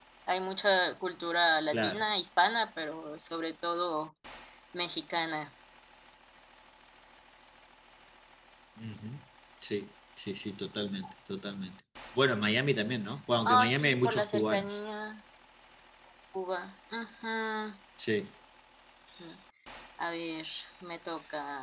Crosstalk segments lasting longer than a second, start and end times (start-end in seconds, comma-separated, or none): 13.4-14.8